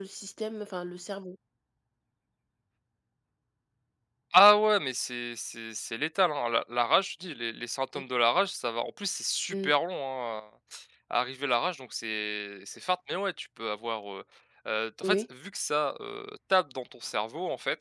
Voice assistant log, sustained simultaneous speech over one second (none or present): none